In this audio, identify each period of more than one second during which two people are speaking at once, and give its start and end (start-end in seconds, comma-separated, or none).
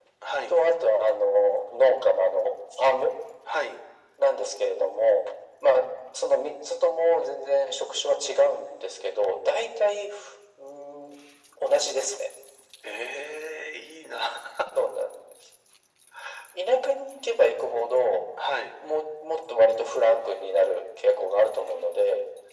none